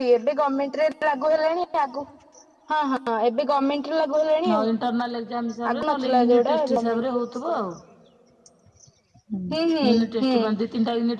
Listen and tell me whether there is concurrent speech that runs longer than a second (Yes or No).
Yes